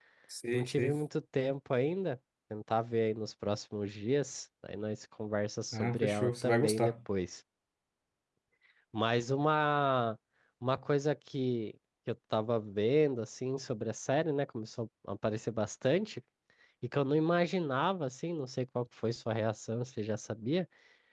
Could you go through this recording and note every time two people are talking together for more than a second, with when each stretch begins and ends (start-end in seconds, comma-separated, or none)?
5.7-6.9